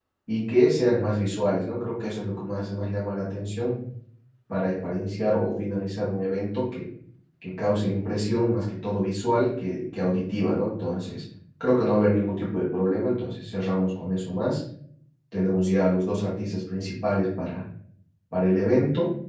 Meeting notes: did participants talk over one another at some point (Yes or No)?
No